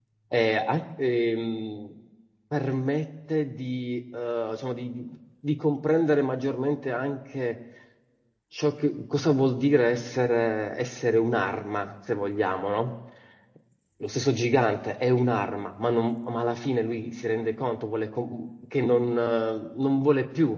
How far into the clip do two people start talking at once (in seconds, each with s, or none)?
none